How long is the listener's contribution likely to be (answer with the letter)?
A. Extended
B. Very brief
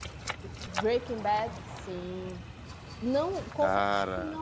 B